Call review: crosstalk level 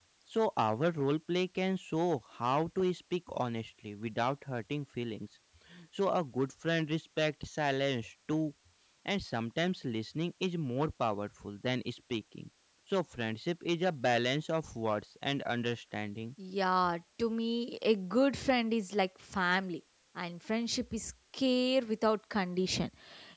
none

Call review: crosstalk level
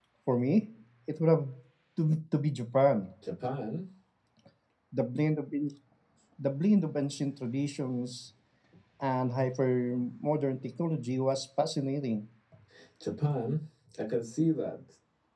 none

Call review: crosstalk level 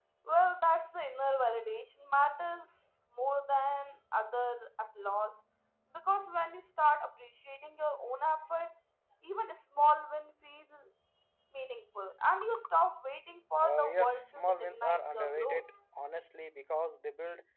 present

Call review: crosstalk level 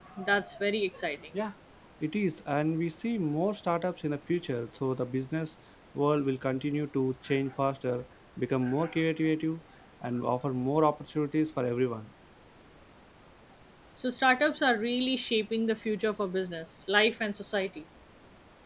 none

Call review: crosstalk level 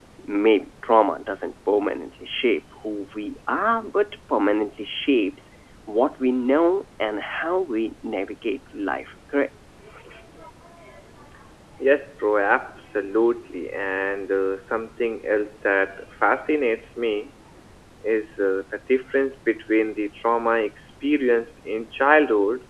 none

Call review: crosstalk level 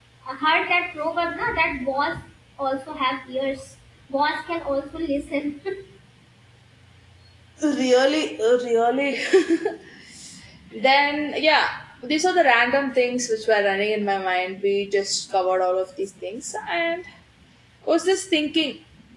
none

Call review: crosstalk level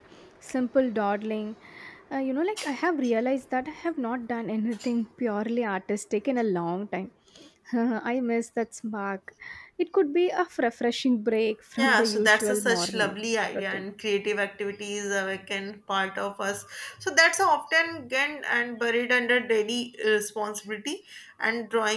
present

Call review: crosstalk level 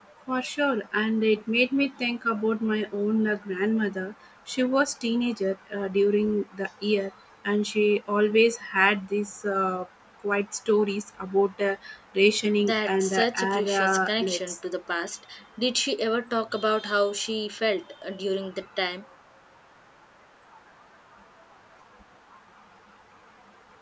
present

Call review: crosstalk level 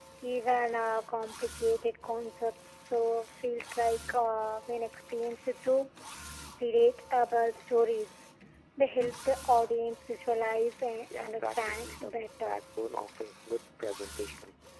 present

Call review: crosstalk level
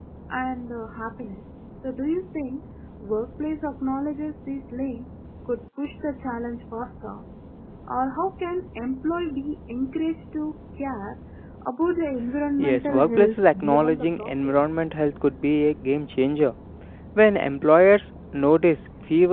present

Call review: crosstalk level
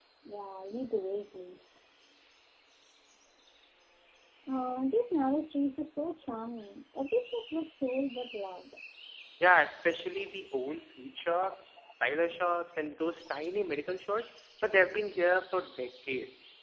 none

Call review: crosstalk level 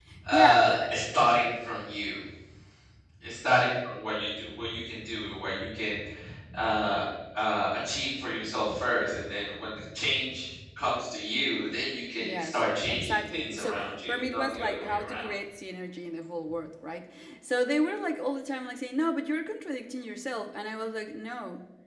present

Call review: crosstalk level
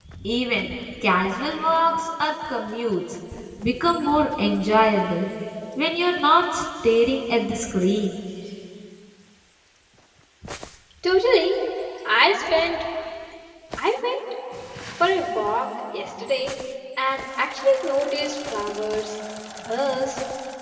none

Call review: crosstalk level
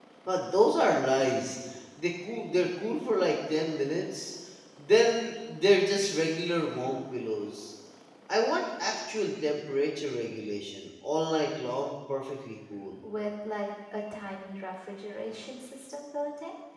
none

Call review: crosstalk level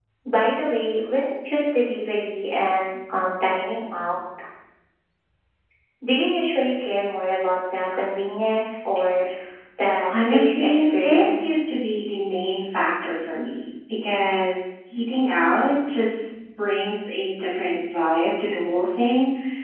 present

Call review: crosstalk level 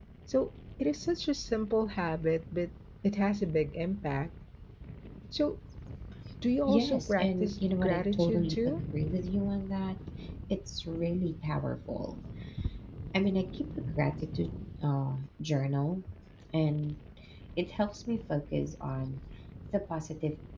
present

